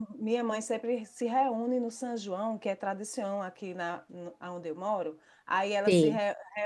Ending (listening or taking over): listening